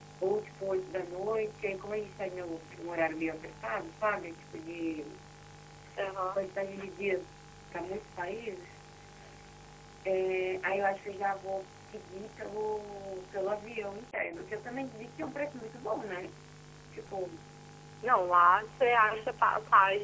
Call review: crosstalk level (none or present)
none